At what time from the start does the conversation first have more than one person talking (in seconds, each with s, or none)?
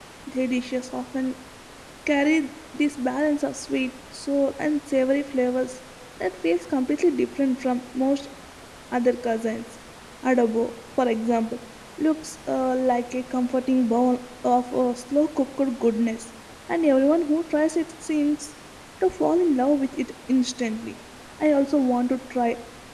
none